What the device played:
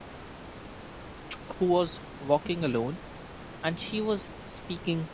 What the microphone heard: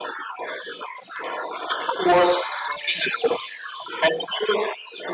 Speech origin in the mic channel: echo only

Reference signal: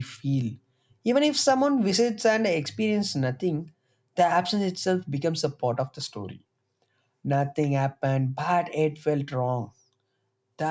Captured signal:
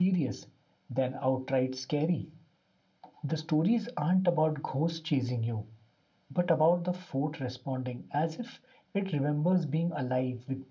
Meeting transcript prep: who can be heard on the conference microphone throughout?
user only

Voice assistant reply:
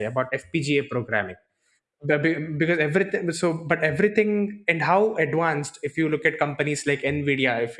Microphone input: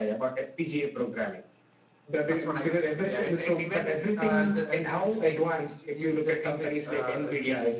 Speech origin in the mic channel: both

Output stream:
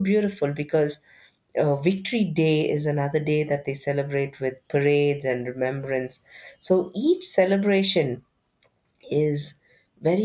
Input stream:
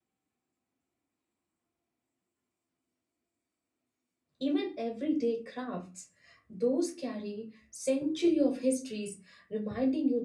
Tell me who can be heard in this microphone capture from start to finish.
user only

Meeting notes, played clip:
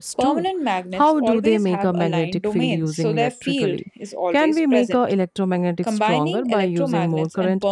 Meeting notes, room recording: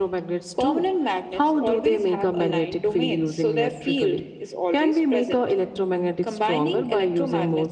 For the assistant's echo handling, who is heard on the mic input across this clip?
echo only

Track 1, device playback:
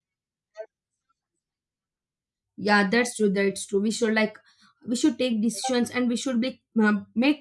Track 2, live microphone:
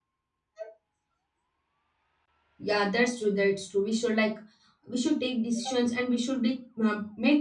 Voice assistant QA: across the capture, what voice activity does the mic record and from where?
echo only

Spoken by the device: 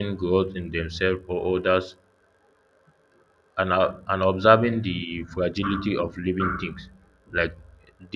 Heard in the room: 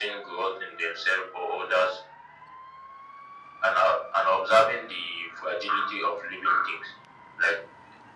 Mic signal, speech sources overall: echo only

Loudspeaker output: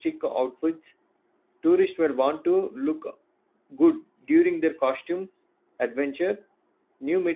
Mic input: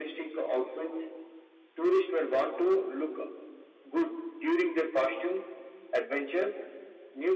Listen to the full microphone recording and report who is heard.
echo only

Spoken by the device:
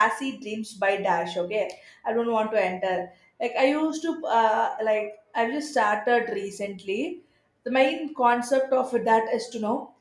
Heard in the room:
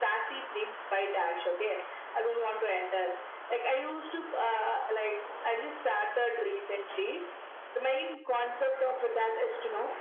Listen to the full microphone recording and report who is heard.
echo only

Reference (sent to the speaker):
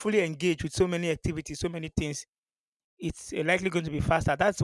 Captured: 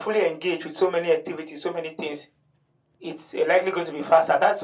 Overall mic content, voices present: echo only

